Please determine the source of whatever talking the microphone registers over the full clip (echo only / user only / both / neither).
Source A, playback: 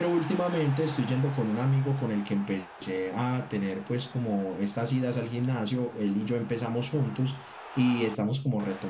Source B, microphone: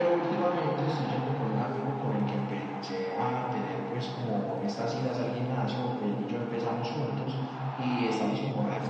both